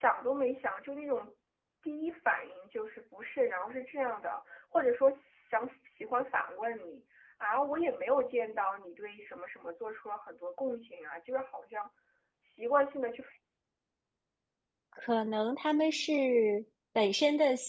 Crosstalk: none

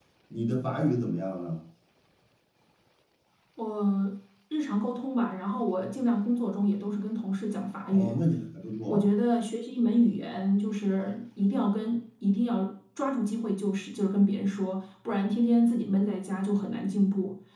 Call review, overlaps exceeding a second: none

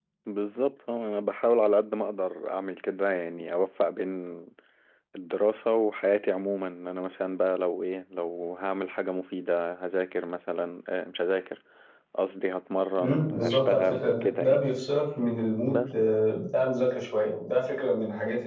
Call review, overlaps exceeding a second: present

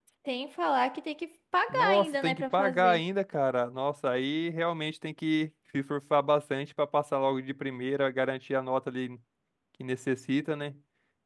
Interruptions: present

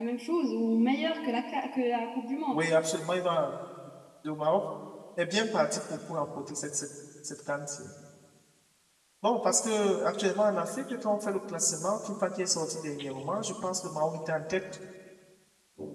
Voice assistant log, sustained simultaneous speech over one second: none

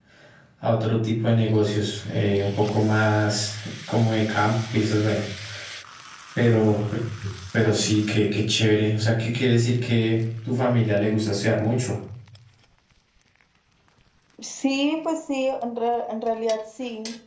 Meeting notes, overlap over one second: none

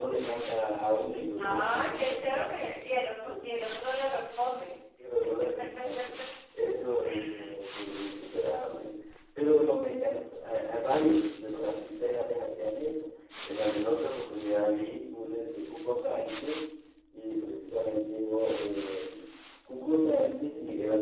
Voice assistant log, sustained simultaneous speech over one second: present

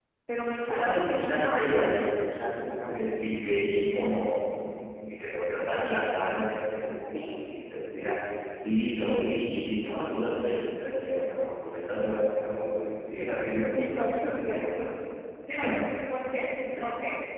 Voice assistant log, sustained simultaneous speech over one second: present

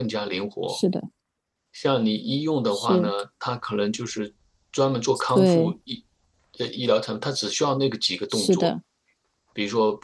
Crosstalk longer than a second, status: none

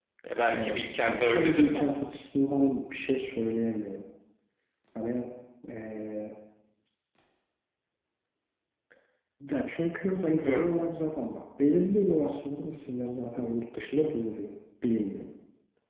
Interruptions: present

